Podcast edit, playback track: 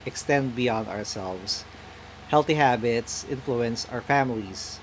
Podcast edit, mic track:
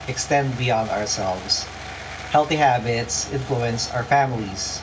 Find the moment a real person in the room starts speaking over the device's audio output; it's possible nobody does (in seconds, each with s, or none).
none